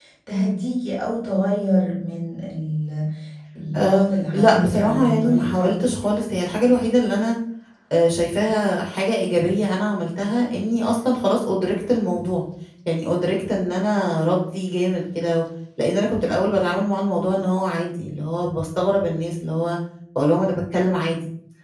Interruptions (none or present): present